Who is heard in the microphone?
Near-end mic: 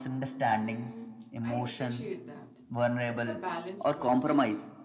both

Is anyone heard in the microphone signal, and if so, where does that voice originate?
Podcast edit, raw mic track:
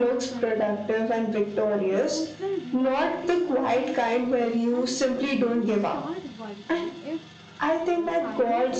both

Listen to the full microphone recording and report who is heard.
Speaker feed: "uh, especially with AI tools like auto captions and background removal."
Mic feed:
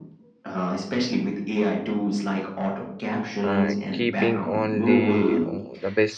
both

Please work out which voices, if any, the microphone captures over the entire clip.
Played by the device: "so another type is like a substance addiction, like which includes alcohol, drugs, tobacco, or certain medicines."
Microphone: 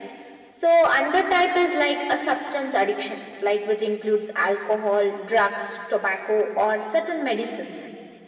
echo only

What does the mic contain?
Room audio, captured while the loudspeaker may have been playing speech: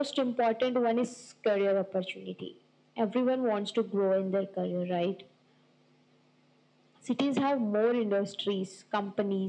echo only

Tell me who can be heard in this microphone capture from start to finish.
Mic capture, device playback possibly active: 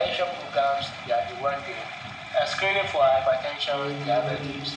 both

